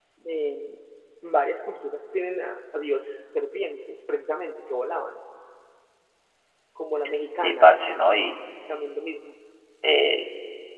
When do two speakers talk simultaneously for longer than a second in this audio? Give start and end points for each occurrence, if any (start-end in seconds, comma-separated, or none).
none